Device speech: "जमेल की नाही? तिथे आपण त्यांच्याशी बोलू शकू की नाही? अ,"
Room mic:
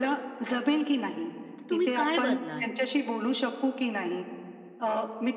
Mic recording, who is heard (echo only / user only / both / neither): both